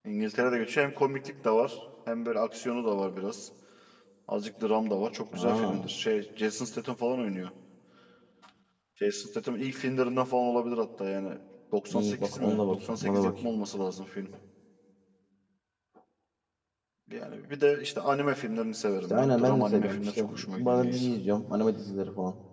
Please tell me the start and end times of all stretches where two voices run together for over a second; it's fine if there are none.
11.9-13.3, 19.1-21.1

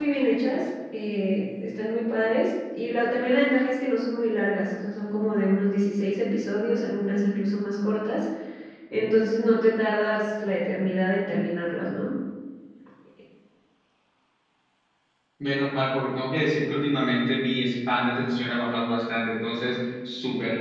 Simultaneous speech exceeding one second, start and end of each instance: none

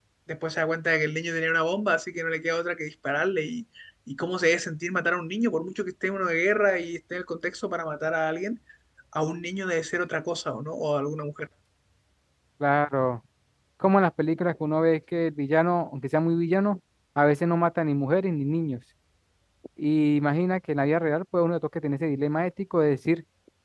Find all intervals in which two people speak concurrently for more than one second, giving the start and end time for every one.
none

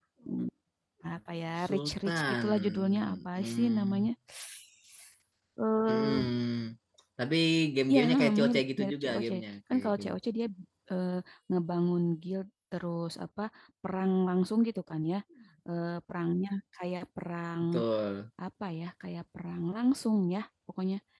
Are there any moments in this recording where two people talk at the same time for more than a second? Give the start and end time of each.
1.6-4.1, 7.9-9.3

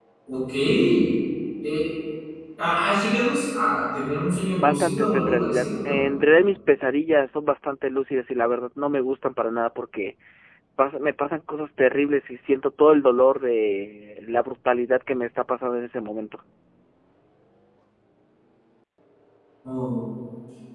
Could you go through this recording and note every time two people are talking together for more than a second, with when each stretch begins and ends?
4.6-6.0

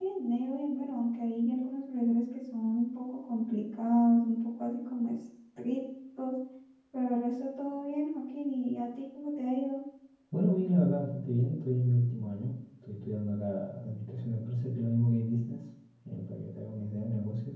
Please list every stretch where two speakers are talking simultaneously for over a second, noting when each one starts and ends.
none

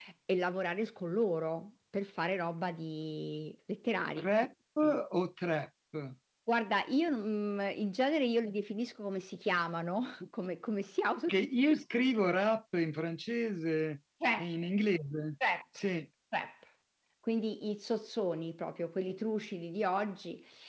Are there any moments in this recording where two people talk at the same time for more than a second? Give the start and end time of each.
none

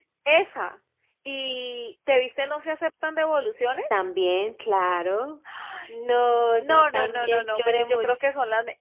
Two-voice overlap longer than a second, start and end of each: 6.6-8.1

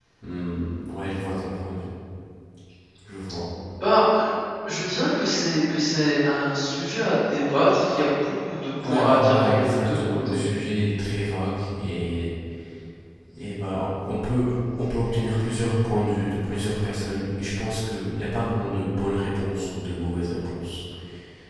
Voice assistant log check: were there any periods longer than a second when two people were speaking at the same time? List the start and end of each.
8.8-10.6

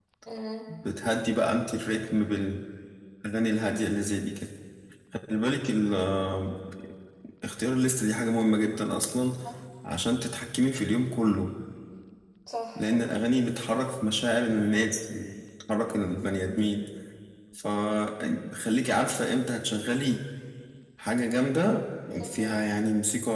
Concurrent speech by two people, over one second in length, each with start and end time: none

